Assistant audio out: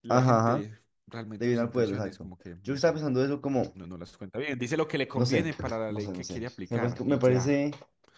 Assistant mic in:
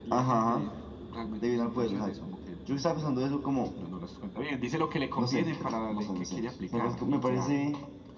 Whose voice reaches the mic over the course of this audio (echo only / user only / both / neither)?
echo only